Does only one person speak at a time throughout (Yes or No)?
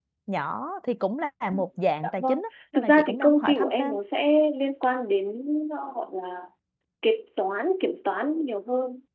No